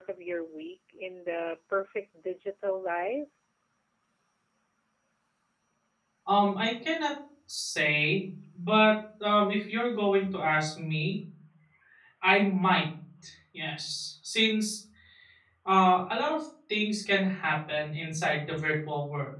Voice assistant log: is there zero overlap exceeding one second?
Yes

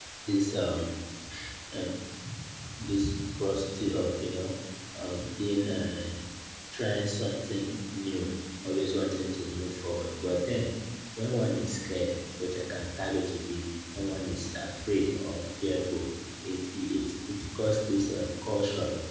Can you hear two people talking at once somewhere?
No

